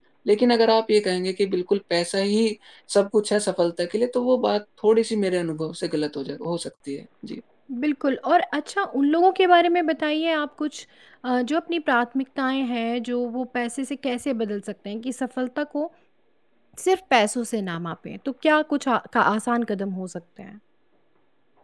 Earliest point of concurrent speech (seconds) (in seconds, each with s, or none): none